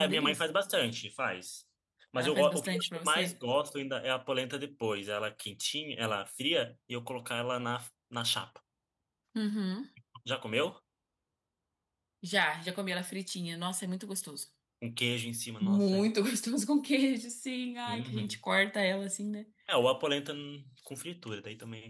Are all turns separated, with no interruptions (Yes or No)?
No